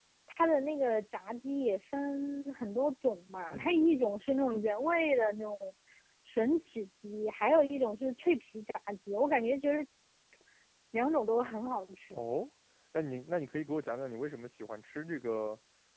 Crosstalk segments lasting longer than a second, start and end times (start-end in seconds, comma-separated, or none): none